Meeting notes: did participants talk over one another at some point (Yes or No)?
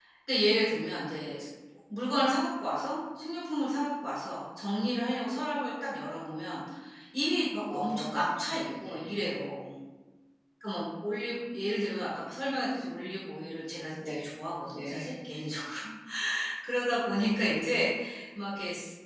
Yes